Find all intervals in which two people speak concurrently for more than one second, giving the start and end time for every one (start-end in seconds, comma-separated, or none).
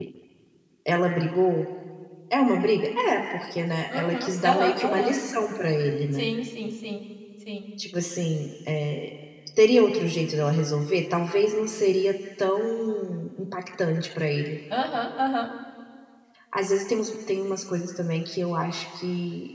3.9-5.2